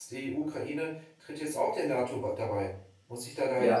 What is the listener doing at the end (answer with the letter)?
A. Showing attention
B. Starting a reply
B